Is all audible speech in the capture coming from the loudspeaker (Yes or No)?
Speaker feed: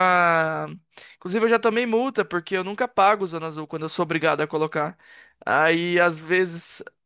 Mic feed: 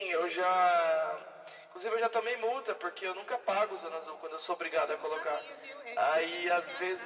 No